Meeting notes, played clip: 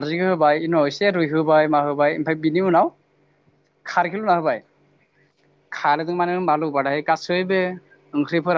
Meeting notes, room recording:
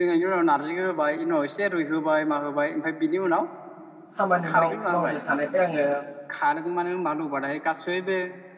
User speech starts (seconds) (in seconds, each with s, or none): 4.2 s